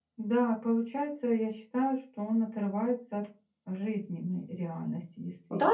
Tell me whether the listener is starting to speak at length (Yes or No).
Yes